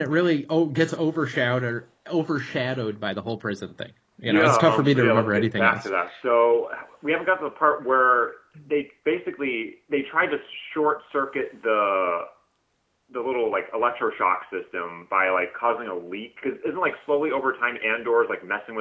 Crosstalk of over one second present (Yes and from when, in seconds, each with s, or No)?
Yes, from 4.2 s